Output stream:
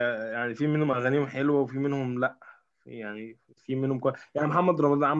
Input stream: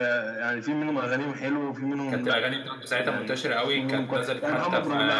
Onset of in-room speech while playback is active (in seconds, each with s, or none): 2.1 s